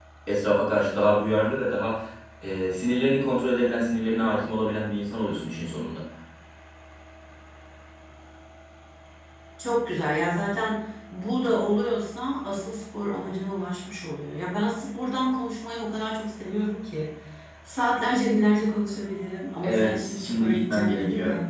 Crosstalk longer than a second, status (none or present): present